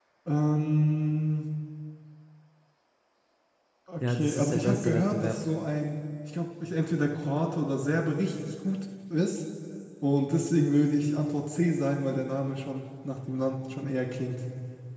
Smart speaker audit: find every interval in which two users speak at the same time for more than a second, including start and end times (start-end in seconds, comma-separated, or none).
4.1-5.3